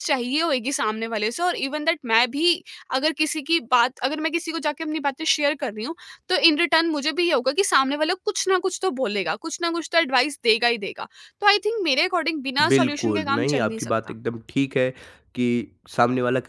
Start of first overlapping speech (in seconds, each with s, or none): 12.6 s